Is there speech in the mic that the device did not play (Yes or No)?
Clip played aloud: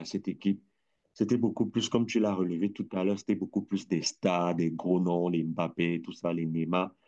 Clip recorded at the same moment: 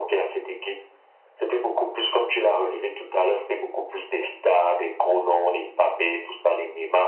No